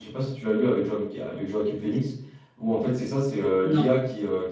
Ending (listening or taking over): listening